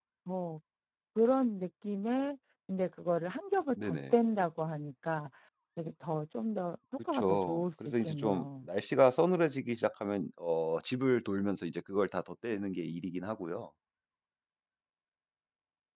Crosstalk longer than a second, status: present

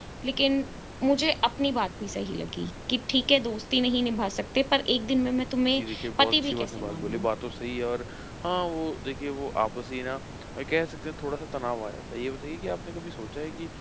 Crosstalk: present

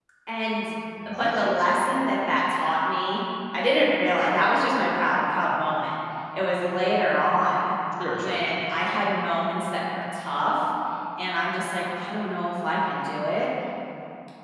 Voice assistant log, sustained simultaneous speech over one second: none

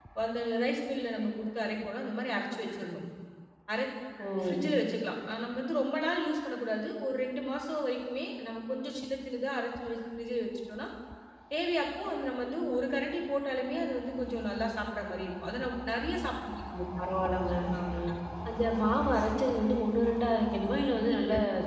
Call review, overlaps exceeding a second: none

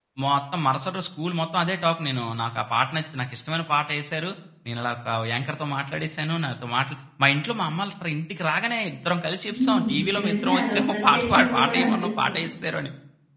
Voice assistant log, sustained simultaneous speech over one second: present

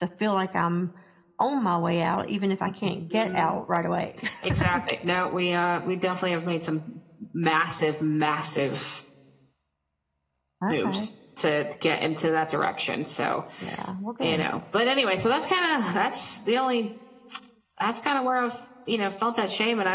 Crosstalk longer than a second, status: none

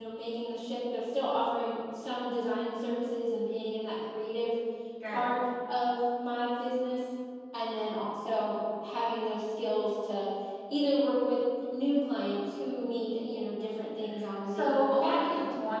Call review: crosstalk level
present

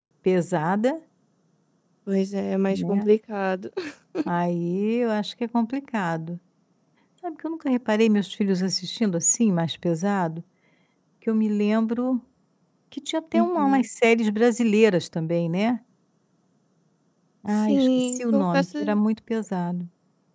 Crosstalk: present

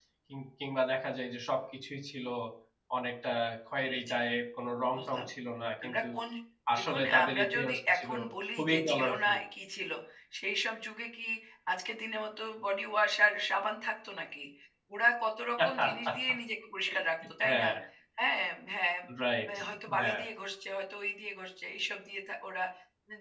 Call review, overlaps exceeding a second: present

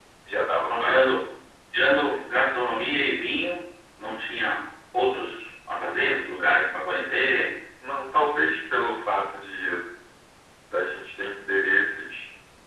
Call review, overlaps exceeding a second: none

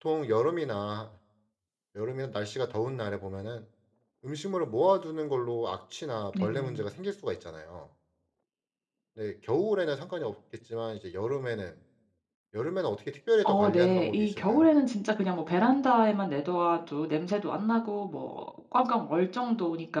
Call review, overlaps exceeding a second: present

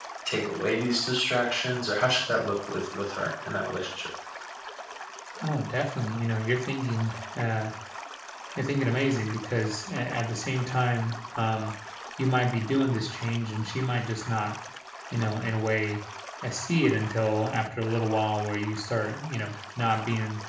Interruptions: none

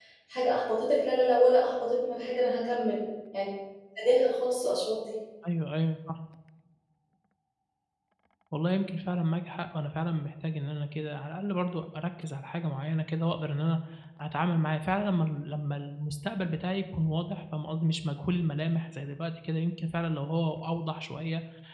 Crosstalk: none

